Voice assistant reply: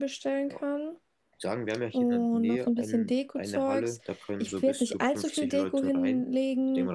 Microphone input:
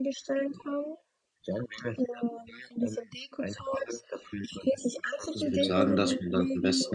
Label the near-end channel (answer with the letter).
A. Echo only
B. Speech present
B